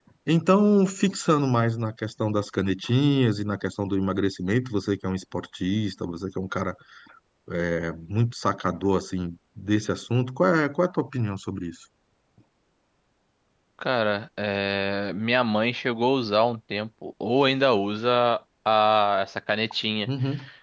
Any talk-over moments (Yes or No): No